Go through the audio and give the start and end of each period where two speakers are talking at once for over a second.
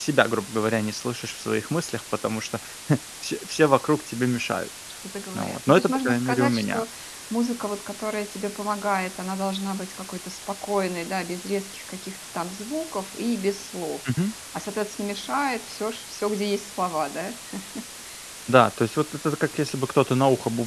5.3-6.8

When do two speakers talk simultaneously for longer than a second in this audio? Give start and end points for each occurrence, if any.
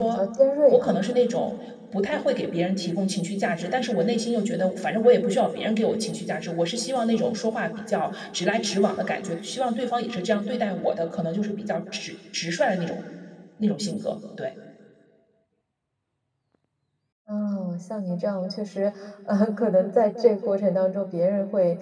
none

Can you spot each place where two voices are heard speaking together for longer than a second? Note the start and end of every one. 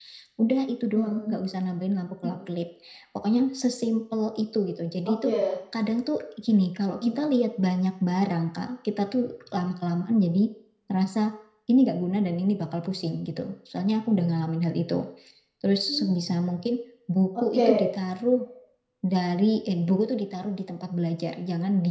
none

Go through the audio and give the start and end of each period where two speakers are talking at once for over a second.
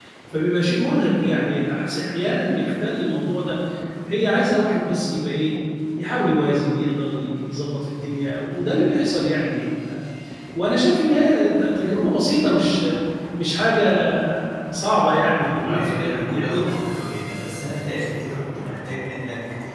15.2-16.8

